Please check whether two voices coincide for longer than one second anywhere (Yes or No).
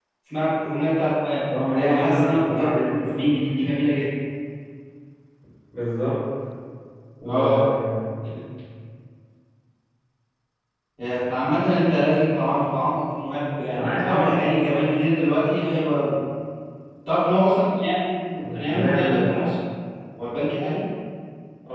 Yes